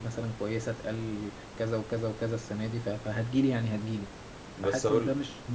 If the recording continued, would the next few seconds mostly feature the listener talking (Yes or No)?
No